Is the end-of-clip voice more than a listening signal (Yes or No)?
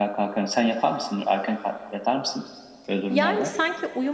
Yes